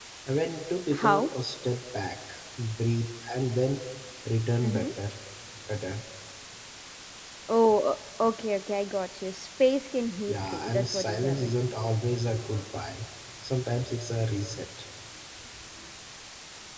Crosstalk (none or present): present